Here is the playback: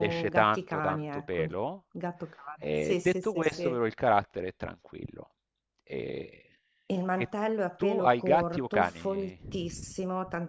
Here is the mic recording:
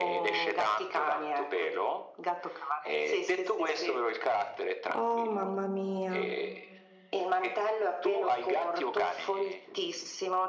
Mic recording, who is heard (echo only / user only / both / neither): both